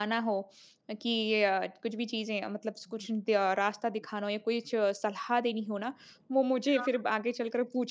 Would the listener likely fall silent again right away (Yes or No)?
Yes